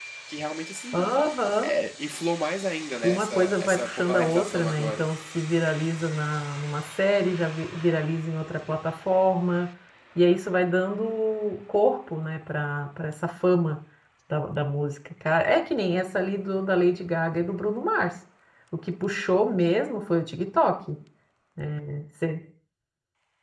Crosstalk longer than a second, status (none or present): present